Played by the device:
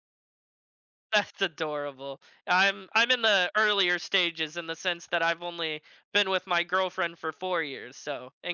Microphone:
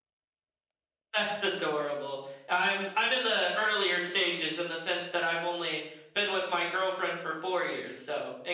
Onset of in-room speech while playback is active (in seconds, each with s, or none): none